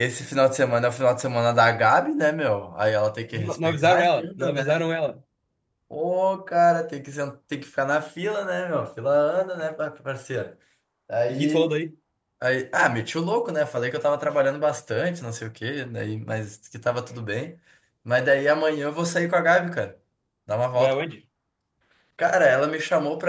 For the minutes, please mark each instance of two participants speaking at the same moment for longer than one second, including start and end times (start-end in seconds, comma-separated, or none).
3.3-4.8